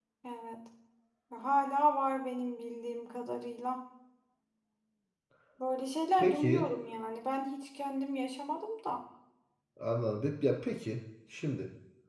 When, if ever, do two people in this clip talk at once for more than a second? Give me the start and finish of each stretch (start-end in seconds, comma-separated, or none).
none